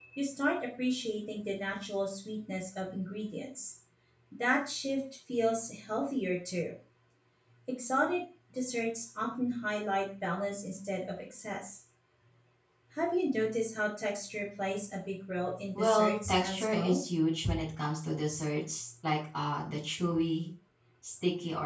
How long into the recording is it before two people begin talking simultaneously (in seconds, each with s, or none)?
15.7 s